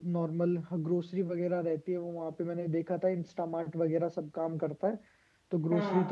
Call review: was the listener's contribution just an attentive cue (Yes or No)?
Yes